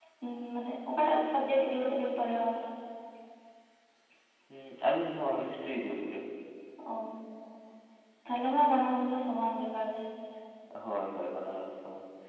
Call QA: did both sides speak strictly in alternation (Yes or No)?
Yes